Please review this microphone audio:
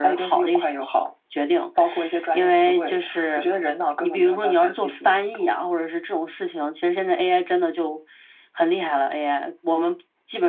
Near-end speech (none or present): none